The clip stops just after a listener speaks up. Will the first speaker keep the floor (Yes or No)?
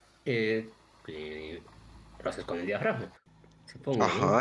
No